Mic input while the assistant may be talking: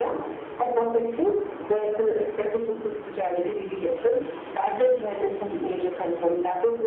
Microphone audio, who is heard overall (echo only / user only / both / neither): echo only